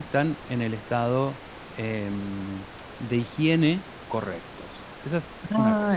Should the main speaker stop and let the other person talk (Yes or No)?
Yes